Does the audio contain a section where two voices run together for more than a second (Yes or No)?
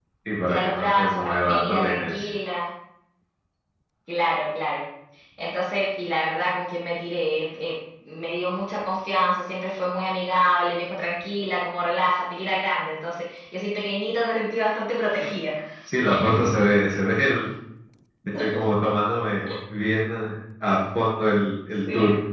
Yes